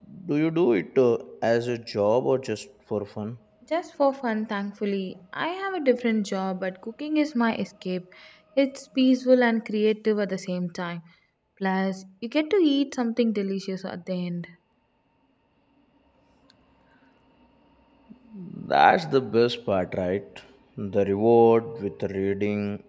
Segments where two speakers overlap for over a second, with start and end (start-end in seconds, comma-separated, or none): none